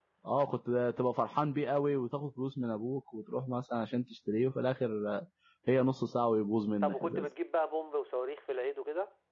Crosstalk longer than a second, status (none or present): none